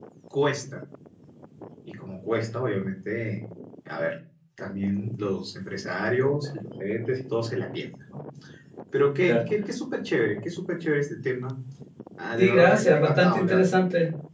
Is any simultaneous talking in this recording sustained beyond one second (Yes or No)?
Yes